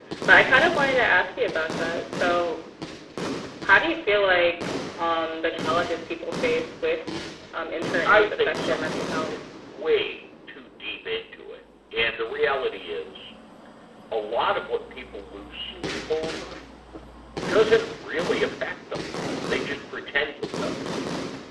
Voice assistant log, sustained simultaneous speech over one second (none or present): present